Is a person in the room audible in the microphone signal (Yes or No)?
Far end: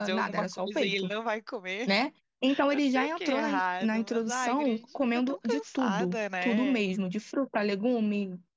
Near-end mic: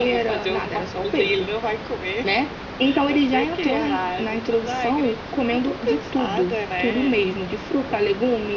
No